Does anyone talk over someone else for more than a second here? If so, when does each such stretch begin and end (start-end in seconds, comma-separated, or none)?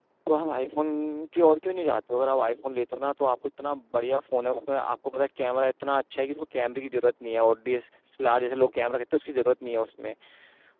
none